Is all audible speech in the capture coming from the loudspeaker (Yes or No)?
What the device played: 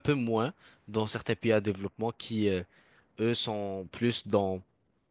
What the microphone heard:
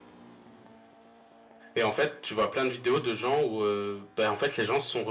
No